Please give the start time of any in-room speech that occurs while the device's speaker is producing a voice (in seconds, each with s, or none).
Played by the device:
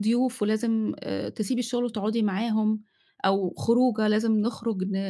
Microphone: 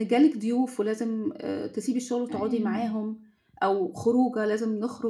2.3 s